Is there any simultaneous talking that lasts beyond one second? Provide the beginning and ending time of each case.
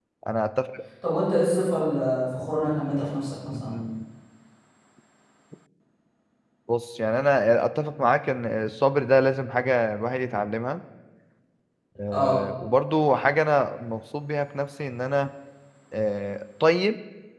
none

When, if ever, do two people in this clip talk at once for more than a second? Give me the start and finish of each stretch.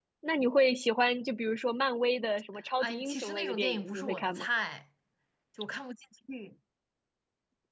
2.8-4.5

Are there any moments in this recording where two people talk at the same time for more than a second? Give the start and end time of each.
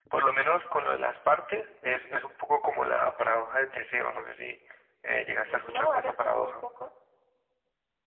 5.1-6.5

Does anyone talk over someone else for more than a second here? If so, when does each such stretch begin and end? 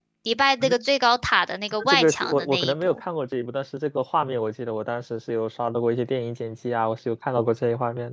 1.8-3.0

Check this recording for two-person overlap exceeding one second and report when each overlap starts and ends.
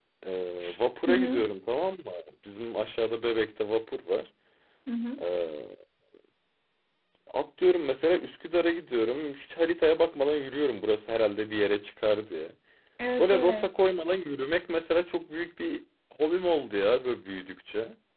none

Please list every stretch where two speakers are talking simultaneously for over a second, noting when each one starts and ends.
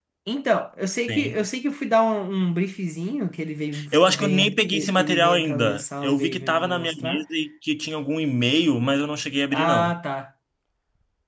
3.9-7.2

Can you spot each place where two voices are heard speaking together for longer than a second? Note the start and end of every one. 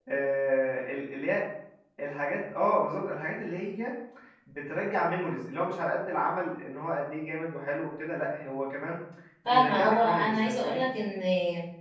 9.4-10.8

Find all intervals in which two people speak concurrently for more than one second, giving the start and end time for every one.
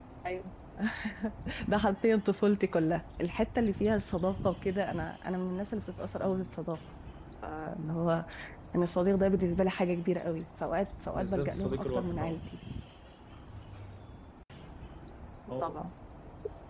11.1-12.4

